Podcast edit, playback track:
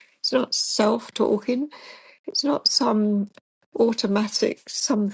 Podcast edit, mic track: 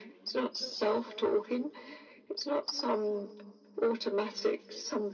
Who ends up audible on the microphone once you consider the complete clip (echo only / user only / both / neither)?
echo only